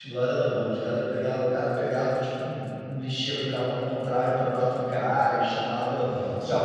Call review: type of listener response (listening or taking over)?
listening